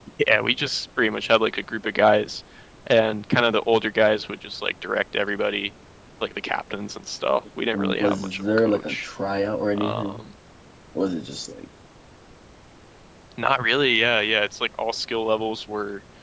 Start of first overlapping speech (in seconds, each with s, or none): 7.7 s